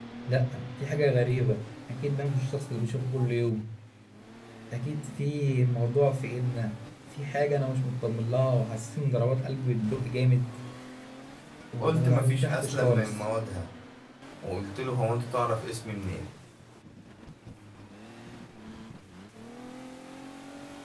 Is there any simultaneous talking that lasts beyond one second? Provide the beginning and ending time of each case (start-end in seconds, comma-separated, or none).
11.8-13.2